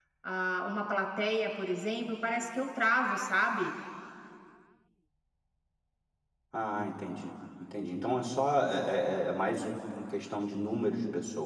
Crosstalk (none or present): none